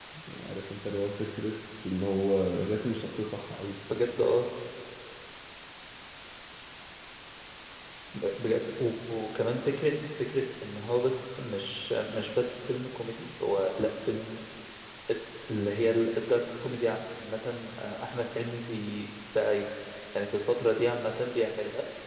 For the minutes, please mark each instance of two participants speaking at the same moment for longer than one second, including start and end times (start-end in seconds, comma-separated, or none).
none